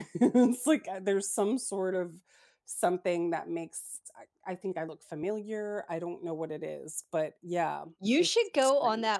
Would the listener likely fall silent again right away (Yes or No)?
No